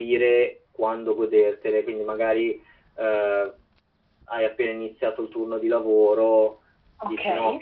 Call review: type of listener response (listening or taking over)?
listening